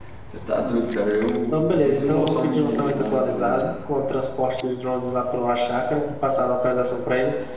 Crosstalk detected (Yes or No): Yes